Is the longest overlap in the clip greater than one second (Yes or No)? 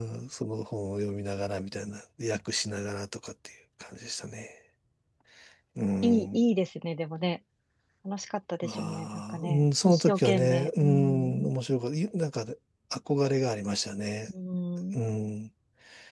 Yes